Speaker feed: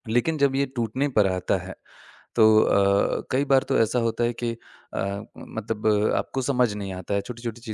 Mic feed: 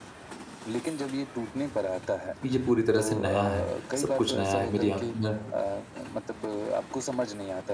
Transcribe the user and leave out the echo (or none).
ये पूरी तरह से नया है, सब कुछ नया है। मेरी आँखों में